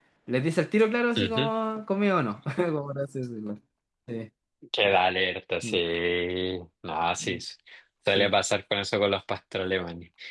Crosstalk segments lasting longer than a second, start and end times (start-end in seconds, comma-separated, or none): none